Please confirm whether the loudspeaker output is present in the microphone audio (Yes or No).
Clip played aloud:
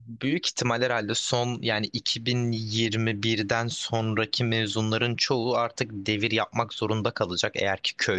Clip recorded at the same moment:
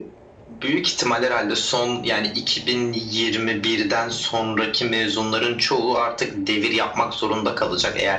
Yes